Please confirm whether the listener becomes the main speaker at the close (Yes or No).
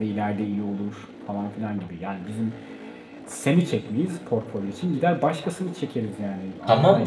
Yes